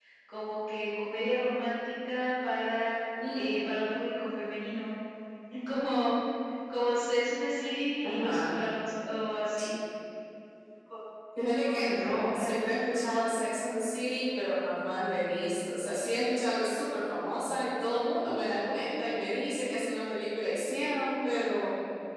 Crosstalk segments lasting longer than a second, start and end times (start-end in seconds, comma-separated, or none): 11.7-13.1